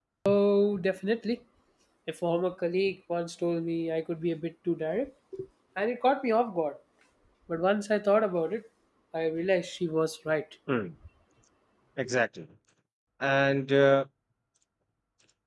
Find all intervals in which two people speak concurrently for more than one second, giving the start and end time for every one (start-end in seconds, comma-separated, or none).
none